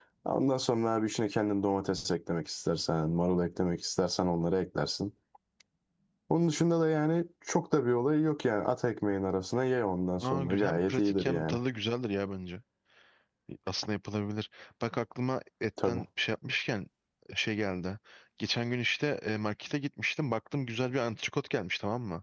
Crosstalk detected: Yes, from 10.2 s

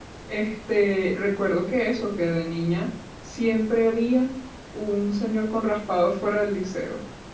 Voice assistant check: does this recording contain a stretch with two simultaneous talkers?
No

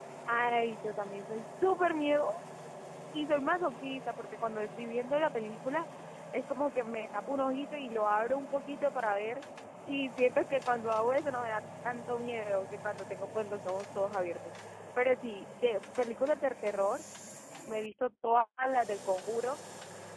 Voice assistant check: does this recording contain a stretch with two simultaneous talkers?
No

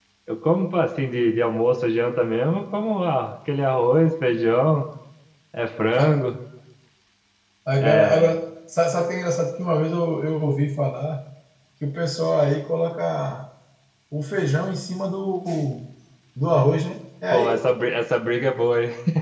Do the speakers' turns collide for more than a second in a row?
No

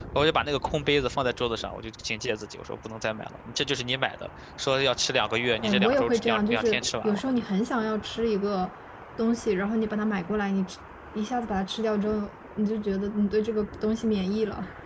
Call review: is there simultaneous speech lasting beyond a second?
Yes, from 5.6 s

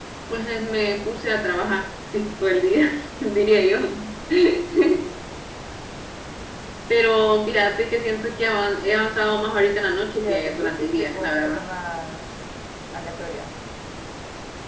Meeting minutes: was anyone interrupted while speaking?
Yes, from 10.1 s

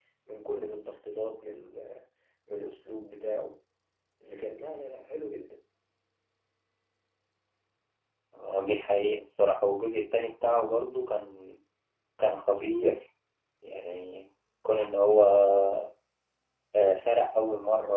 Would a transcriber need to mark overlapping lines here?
No

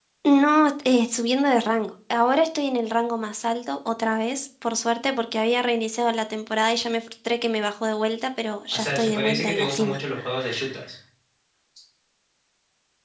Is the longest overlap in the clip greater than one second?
Yes, from 8.7 s

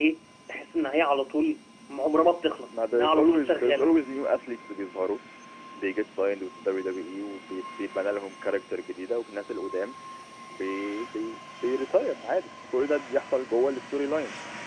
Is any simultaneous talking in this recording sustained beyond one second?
Yes, from 2.7 s

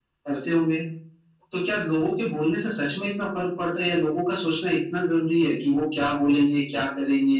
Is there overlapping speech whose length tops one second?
No

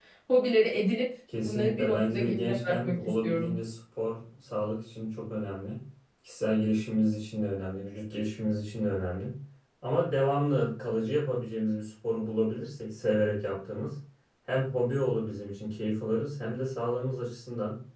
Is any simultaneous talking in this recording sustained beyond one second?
Yes, from 1.3 s

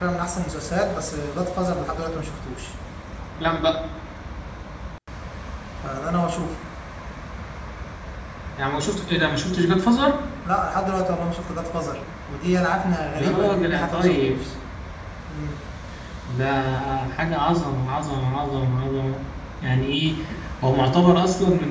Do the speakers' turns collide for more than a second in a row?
Yes, from 13.2 s

